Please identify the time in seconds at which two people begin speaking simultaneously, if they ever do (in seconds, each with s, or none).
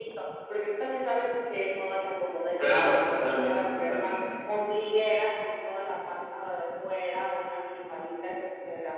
2.6 s